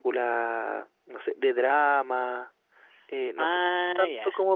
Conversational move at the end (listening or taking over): listening